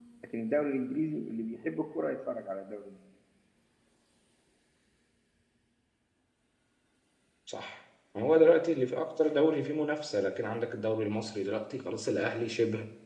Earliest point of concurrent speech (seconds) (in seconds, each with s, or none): none